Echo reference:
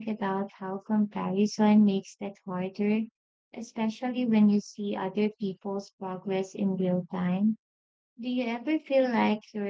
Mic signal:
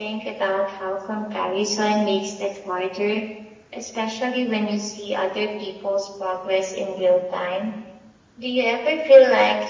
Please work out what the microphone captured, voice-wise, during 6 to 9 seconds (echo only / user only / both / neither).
echo only